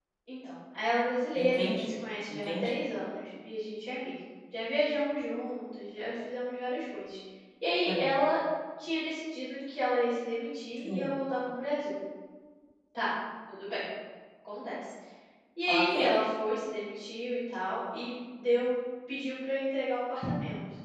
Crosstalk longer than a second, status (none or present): none